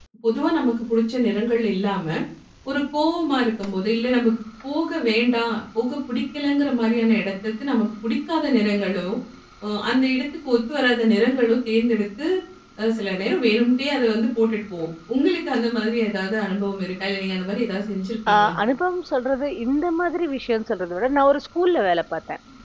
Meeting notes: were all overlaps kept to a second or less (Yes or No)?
Yes